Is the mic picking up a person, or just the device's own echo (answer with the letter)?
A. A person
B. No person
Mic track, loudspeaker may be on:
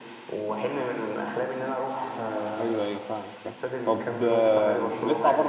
A